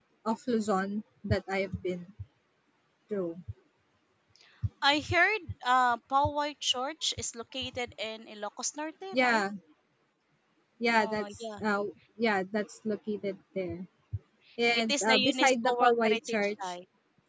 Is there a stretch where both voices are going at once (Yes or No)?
Yes